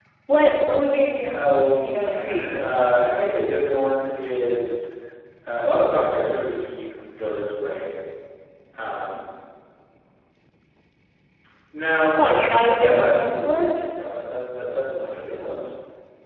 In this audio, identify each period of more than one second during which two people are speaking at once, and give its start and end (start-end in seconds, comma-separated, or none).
1.3-2.7, 12.2-13.7